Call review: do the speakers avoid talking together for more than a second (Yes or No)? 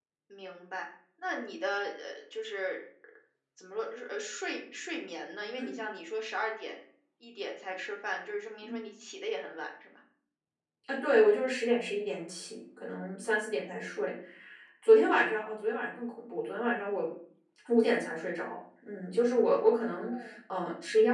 Yes